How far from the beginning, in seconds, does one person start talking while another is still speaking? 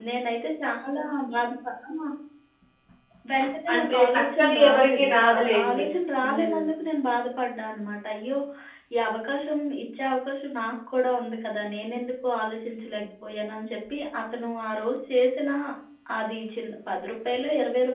4 s

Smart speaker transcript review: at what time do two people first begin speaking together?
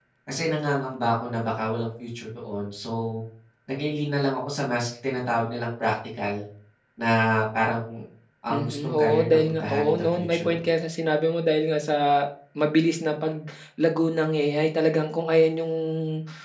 9 s

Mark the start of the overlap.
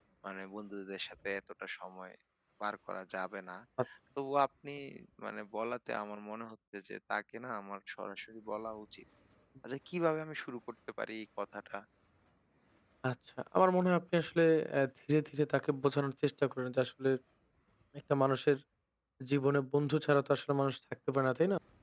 none

